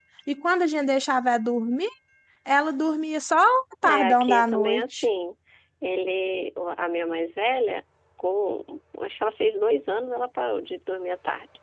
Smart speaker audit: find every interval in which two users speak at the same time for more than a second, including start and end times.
3.8-5.0

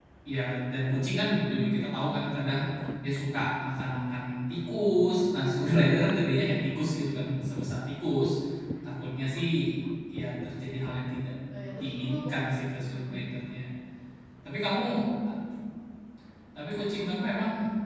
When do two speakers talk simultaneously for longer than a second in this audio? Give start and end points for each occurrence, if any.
11.8-13.1

